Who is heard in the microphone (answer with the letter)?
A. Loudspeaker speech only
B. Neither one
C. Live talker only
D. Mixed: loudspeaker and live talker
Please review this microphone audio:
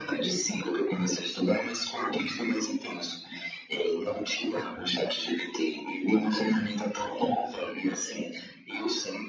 A